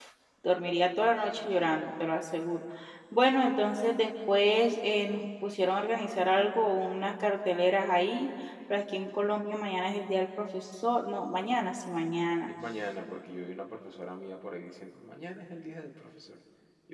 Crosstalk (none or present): none